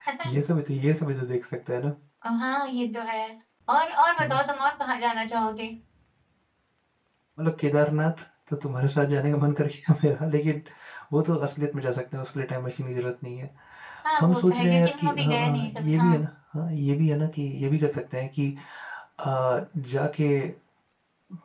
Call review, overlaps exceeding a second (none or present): present